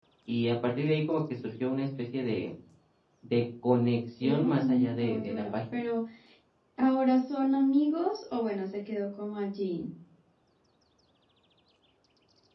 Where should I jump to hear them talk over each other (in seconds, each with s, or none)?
4.2 s